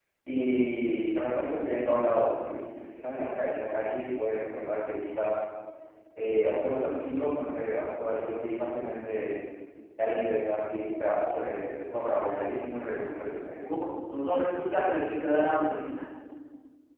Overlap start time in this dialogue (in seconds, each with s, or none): none